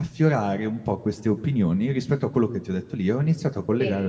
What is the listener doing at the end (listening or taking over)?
listening